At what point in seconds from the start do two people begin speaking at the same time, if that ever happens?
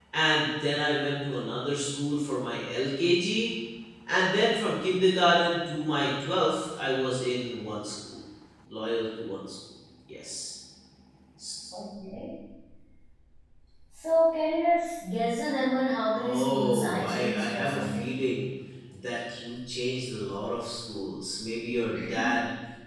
16.2 s

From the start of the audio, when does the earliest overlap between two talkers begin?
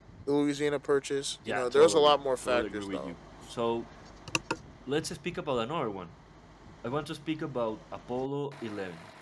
1.4 s

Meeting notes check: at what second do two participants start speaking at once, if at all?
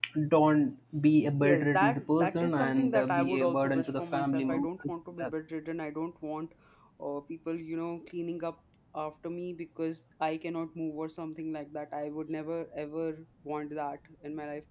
1.4 s

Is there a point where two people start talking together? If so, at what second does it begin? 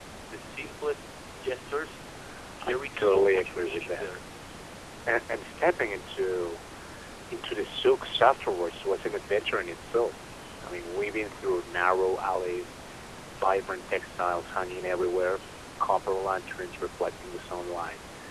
2.7 s

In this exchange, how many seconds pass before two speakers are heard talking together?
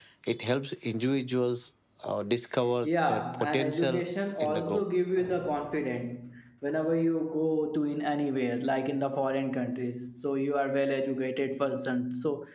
2.8 s

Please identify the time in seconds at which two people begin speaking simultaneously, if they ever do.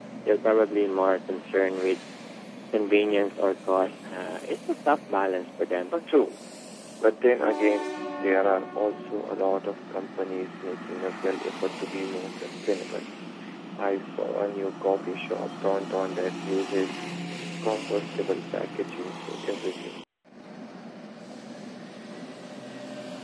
none

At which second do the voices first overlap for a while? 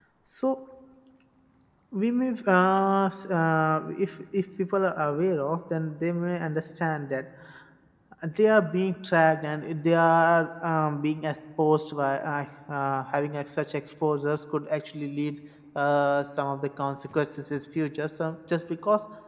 none

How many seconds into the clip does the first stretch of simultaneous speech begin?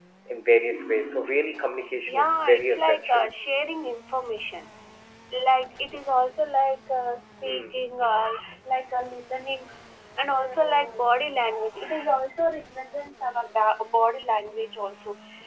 2.0 s

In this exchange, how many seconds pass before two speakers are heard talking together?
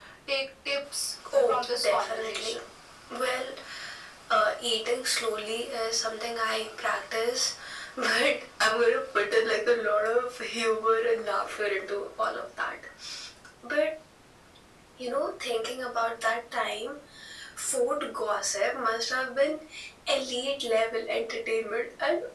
1.3 s

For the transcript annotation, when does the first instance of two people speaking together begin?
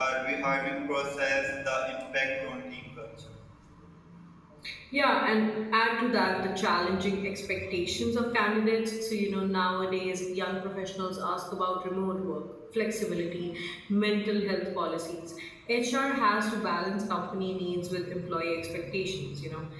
none

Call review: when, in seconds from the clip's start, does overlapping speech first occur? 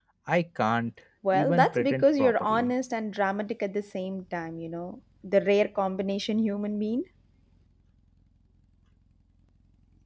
1.2 s

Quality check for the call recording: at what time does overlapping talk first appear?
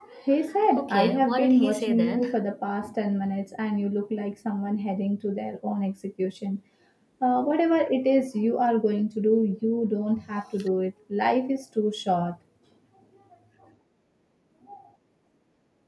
0.8 s

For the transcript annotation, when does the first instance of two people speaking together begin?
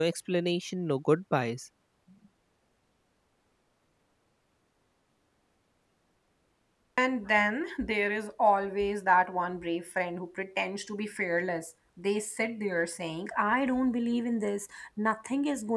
none

